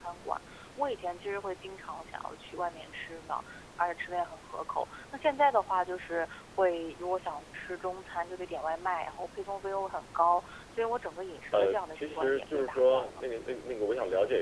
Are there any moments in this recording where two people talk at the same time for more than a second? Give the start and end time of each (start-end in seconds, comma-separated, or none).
11.5-13.2